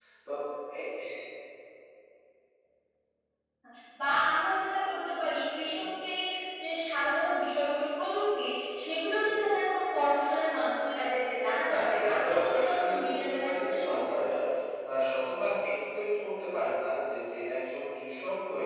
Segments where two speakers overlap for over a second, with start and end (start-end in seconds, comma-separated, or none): 11.7-14.2